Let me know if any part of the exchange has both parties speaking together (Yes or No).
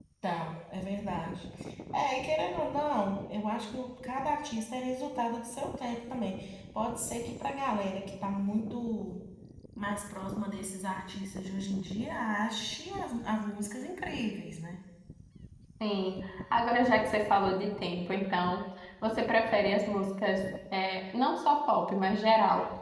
No